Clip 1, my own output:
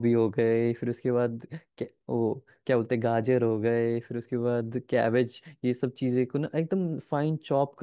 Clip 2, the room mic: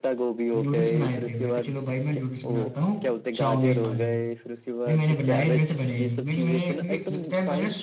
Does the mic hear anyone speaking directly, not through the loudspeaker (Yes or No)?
Yes